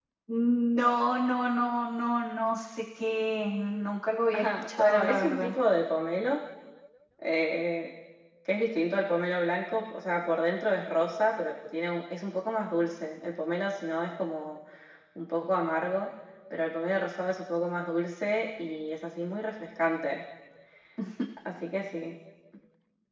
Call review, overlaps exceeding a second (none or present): present